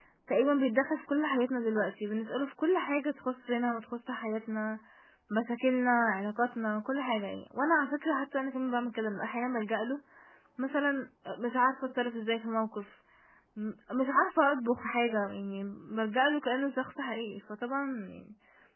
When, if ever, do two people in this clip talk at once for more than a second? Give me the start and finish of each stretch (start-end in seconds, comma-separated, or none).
none